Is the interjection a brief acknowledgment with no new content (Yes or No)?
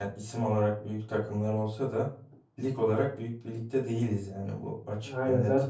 No